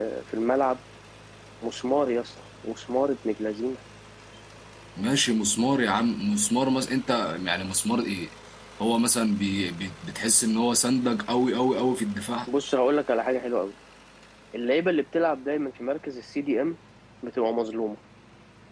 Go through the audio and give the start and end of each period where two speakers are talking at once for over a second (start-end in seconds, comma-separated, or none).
none